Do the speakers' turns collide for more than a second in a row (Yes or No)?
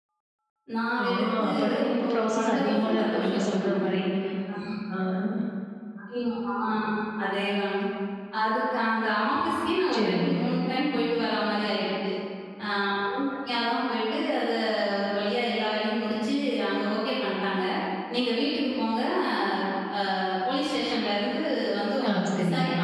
Yes